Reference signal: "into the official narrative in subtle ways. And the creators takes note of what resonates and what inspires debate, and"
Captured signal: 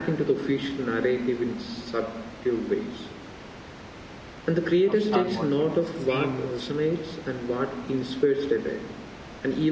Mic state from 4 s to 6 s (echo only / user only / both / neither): both